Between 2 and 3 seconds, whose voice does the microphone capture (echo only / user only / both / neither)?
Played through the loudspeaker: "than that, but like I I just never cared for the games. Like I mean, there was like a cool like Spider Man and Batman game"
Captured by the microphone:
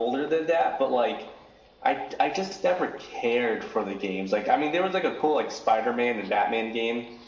echo only